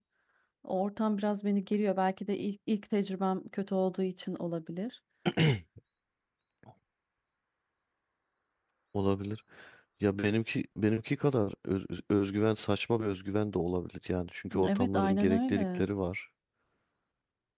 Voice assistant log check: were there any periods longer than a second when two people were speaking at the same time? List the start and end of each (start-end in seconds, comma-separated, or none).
14.6-15.9